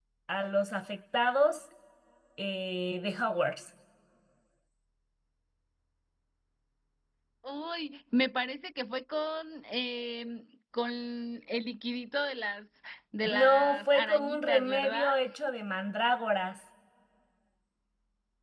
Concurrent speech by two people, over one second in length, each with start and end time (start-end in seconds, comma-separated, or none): 13.3-15.1